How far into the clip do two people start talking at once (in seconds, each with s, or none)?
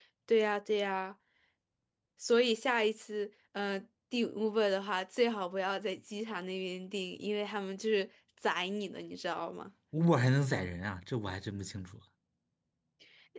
none